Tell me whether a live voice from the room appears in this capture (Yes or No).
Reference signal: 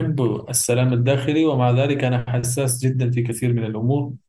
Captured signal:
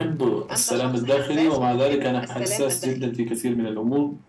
Yes